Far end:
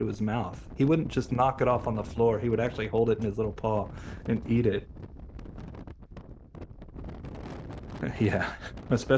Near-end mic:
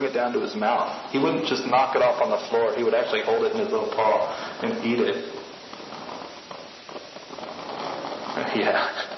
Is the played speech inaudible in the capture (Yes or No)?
No